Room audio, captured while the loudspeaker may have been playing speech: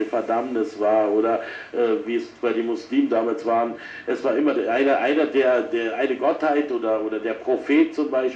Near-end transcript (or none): none